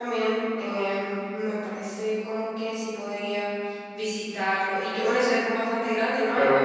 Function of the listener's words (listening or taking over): taking over